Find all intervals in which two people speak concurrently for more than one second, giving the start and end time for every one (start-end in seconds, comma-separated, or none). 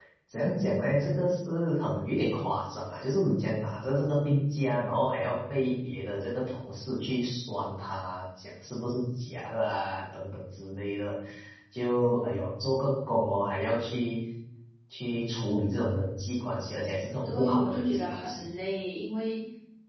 17.2-18.5